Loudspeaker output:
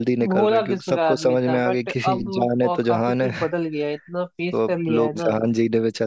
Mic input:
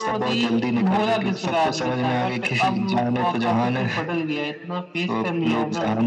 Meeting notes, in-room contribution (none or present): none